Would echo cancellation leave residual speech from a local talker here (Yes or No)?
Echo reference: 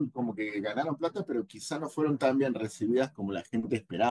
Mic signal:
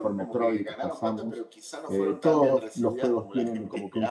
Yes